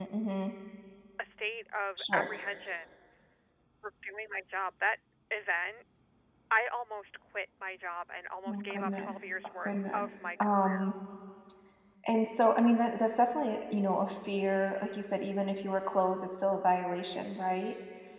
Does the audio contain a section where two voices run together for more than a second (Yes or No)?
Yes